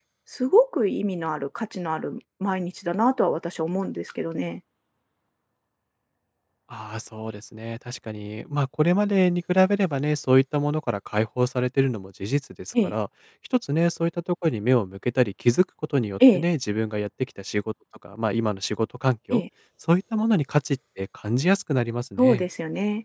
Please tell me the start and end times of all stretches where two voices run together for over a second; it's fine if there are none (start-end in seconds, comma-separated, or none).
none